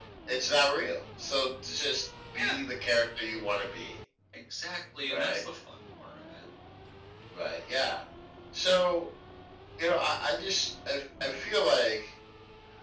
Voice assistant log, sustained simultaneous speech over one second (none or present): none